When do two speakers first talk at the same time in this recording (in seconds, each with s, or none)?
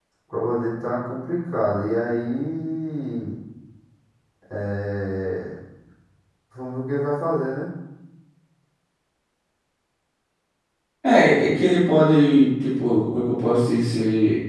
none